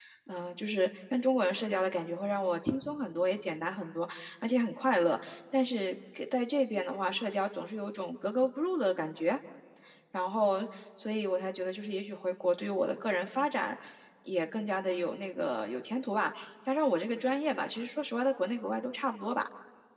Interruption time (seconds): none

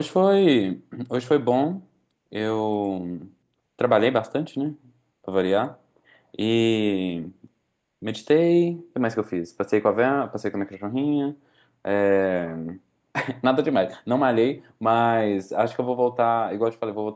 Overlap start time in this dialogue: none

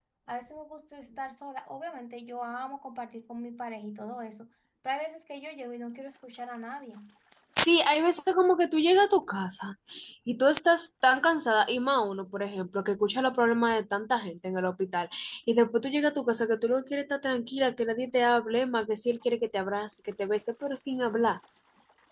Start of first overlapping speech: none

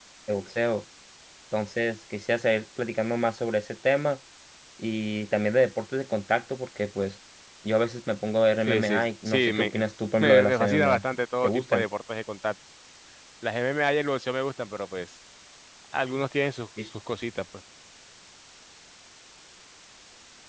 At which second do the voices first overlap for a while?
8.7 s

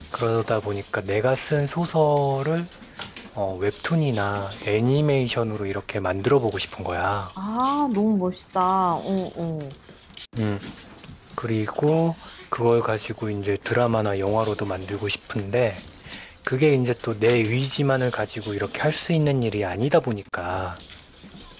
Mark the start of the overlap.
none

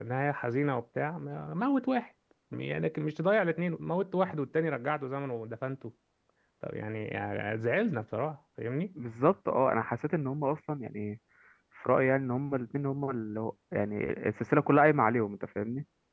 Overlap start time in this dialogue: none

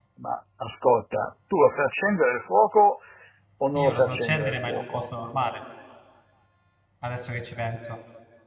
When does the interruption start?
3.8 s

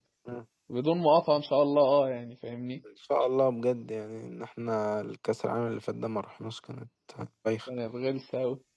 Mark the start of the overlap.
none

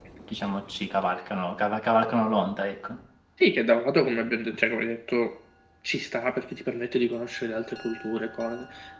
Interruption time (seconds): none

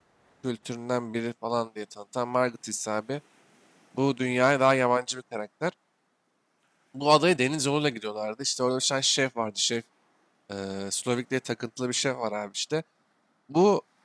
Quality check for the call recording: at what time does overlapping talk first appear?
none

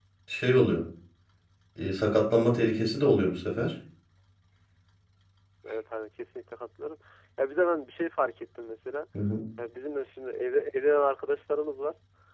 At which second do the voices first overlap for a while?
none

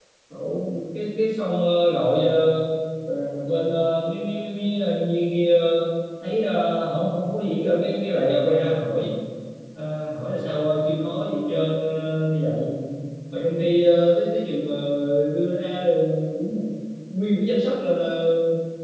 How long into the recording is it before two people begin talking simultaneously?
none

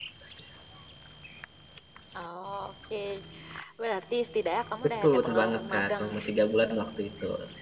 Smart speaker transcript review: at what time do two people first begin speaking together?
4.8 s

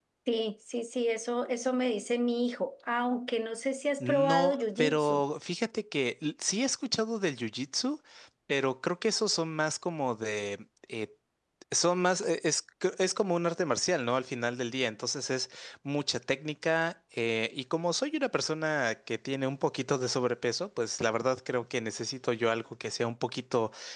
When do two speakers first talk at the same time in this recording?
4.0 s

